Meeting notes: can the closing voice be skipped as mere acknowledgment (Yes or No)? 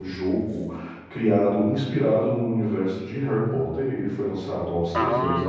Yes